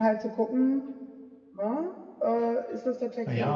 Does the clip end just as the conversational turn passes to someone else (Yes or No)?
Yes